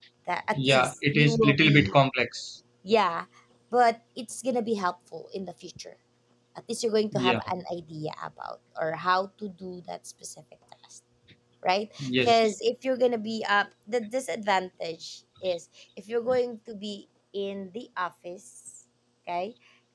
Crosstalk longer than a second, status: present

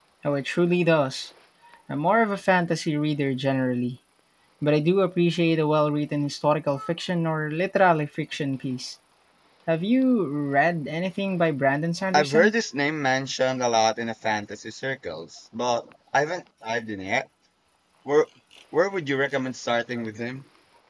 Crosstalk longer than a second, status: none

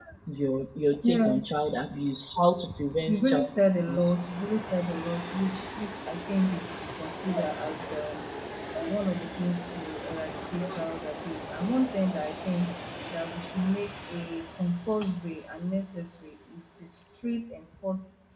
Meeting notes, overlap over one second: none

